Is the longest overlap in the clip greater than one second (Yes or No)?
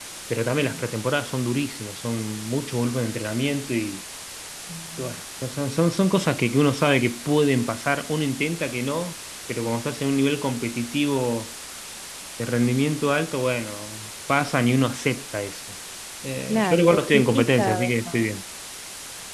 Yes